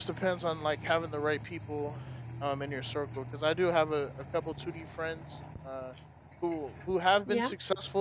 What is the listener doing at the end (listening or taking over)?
listening